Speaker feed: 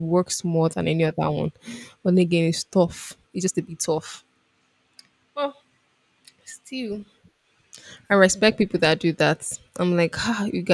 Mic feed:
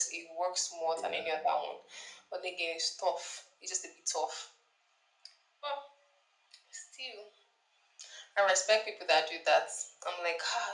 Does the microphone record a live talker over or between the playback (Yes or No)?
Yes